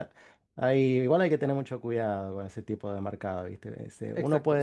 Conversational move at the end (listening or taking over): taking over